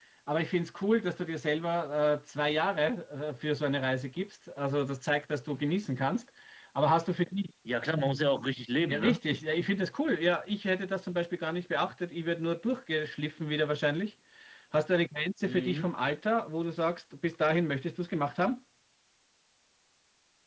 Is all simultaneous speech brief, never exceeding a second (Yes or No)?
Yes